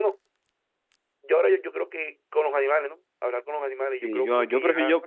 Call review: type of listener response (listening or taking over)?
taking over